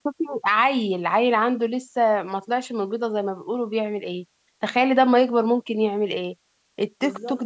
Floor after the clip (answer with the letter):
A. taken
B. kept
B